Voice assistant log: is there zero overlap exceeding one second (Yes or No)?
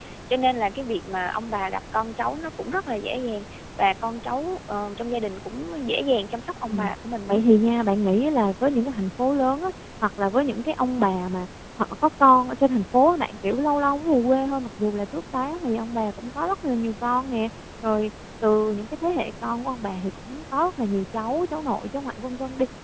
Yes